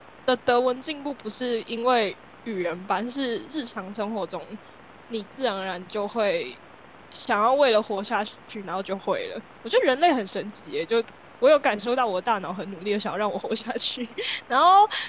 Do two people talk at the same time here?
No

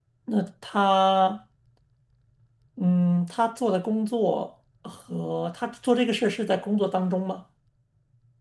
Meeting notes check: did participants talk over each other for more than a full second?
No

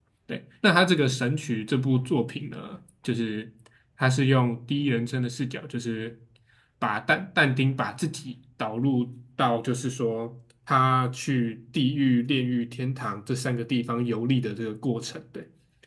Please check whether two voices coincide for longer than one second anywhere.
No

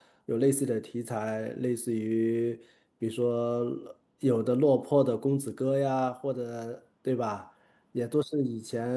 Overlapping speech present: No

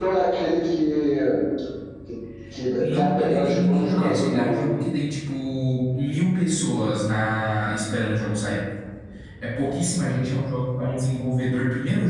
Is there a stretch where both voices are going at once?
Yes, from 2.8 s

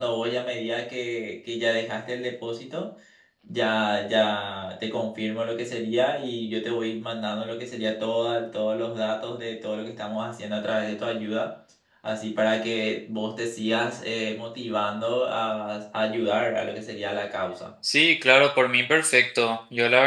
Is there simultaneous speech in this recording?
No

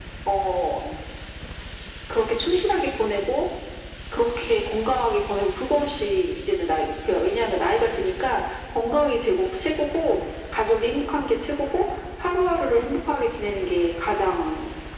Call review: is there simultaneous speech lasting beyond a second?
No

